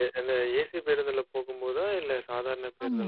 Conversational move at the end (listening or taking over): taking over